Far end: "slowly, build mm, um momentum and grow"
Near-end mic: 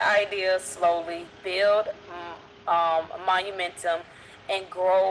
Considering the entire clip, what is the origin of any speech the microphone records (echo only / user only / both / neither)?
echo only